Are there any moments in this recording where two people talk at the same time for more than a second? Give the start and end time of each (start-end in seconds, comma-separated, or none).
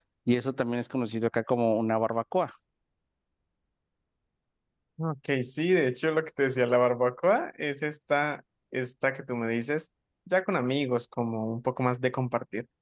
none